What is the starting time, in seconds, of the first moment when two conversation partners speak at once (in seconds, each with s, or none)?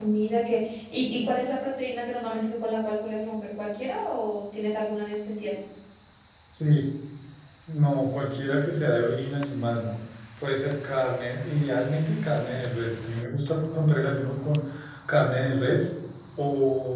none